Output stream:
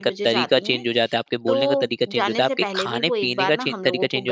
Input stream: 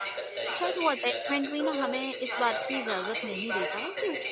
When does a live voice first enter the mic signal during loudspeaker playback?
0.6 s

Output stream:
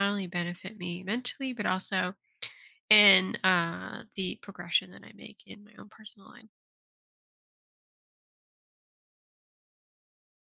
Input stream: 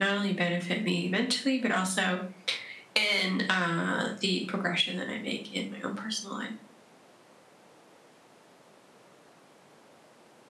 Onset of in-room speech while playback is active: none

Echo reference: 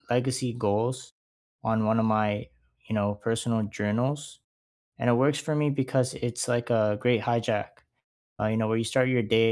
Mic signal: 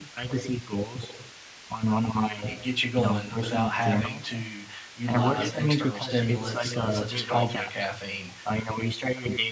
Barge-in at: 2.4 s

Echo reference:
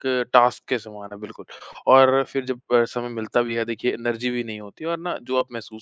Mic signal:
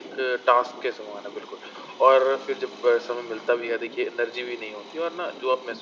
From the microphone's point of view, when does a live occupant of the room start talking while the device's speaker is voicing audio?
none

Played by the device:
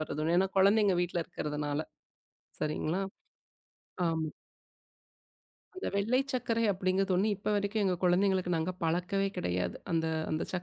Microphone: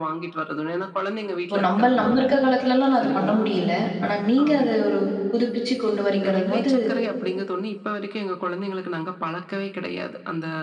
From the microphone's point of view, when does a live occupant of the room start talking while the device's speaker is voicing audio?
1.4 s

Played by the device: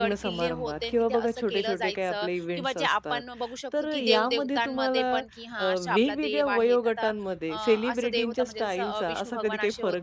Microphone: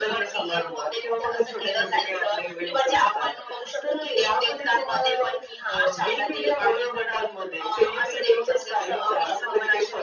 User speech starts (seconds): none

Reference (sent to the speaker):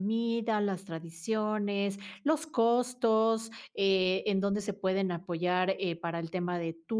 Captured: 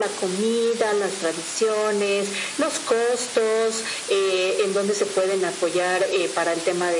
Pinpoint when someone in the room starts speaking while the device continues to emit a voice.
none

